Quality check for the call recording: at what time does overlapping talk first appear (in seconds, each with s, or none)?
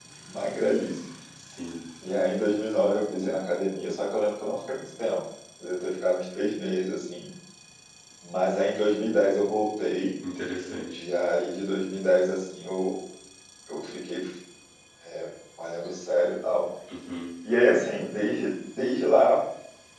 none